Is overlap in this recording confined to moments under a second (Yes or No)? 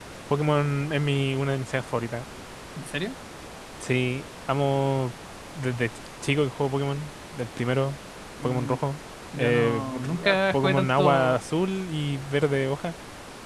No